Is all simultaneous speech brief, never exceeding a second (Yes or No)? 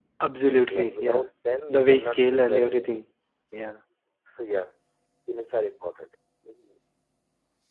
No